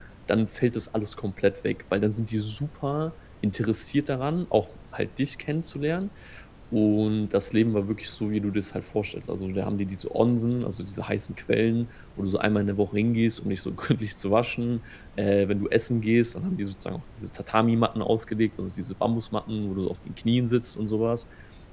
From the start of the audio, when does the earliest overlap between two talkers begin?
none

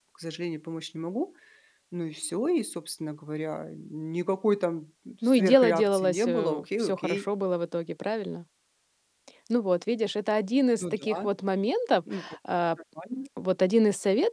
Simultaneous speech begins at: 5.2 s

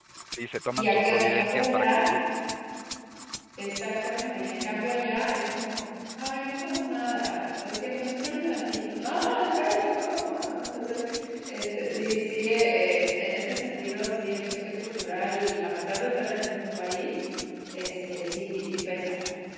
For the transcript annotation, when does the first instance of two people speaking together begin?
0.7 s

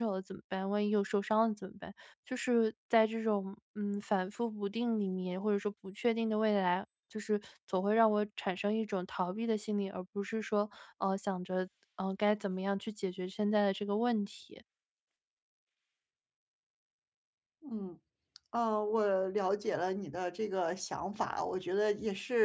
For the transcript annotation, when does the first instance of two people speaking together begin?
none

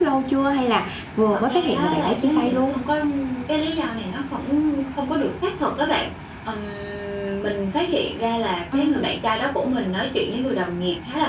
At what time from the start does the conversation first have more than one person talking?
1.3 s

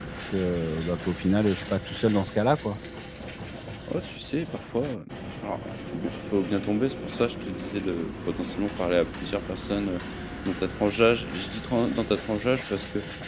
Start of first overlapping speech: none

